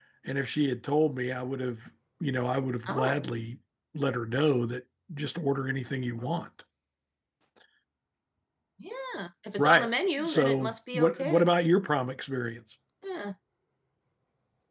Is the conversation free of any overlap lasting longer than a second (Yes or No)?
No